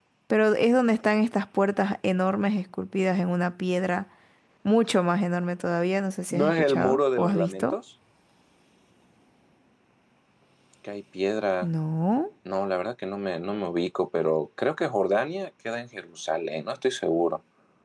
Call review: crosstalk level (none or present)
present